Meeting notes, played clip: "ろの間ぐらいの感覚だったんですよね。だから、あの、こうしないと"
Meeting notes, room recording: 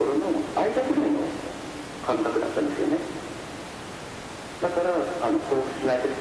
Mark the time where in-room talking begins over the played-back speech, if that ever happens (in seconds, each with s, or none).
none